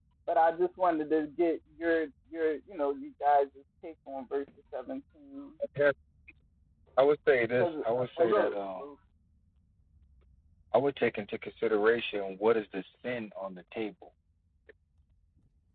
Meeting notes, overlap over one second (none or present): present